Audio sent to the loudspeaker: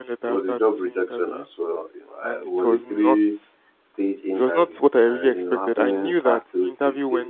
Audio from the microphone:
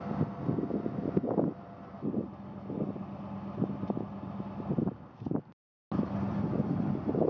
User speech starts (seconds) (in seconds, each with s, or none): none